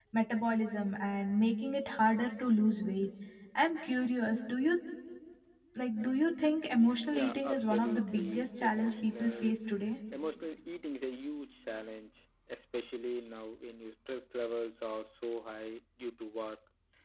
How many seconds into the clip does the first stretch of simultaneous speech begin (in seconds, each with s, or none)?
7.1 s